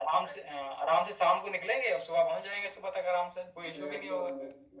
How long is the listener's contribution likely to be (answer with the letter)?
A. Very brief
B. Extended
B